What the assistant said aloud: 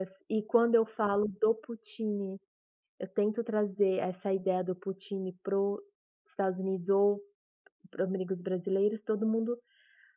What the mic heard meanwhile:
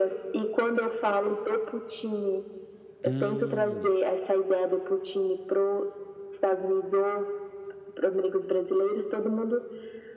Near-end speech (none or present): present